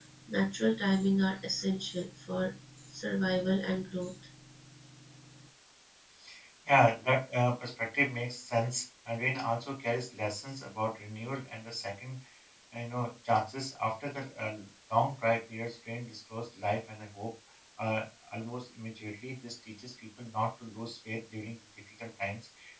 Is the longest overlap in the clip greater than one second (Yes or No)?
No